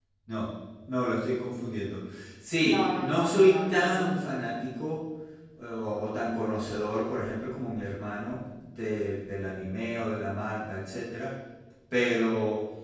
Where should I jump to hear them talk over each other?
3 s

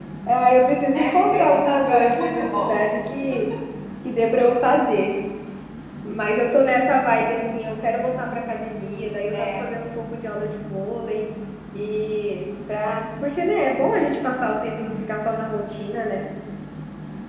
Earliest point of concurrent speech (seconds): 1 s

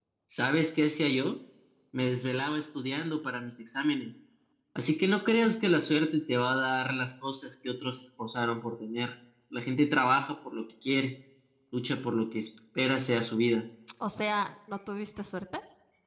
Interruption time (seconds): none

